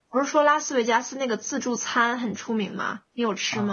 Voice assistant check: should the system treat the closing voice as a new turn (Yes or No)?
Yes